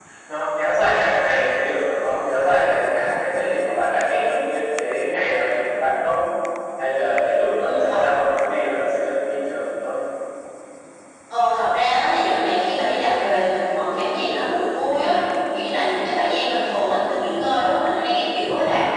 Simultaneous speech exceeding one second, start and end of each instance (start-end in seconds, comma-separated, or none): none